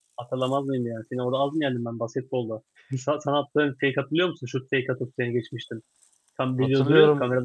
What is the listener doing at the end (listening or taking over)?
taking over